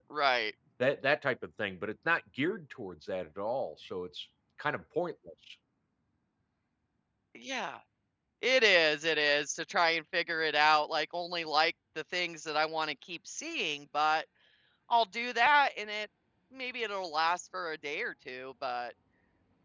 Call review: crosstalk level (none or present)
none